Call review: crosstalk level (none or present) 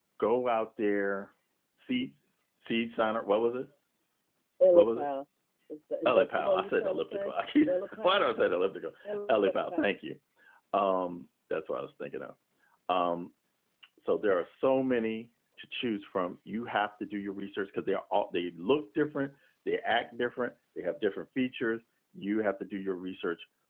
present